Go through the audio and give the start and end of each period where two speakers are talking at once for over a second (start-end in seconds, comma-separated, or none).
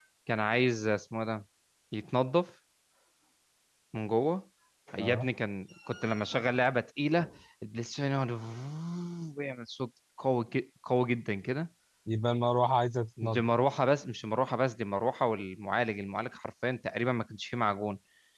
none